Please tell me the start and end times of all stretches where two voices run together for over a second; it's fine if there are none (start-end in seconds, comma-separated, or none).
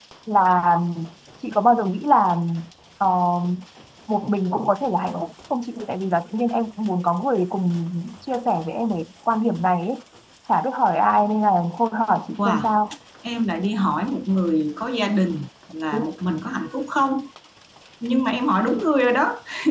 none